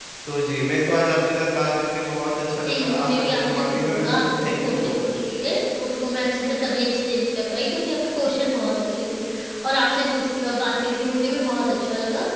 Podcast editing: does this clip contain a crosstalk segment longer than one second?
Yes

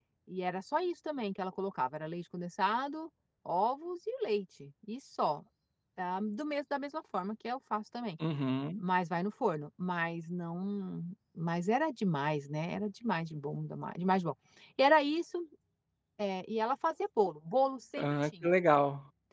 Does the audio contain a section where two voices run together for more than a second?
No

